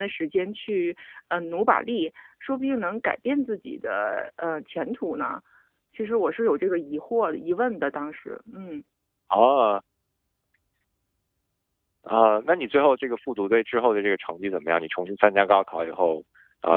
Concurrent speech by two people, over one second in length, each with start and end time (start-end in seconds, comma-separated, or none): none